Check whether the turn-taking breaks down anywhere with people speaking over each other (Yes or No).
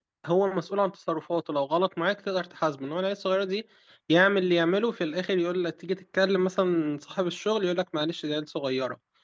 No